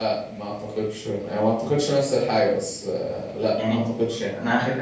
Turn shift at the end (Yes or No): Yes